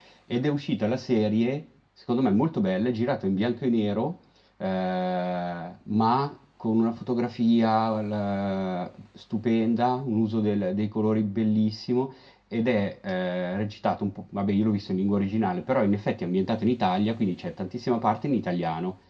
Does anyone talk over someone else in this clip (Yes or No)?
No